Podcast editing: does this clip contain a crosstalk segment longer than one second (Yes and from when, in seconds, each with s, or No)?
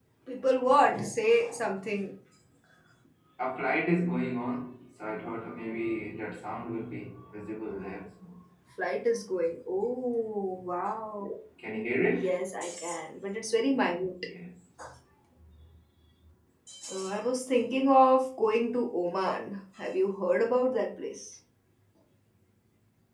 No